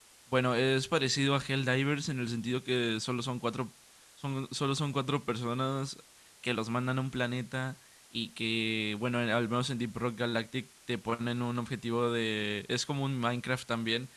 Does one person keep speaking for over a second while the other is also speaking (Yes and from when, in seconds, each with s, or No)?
No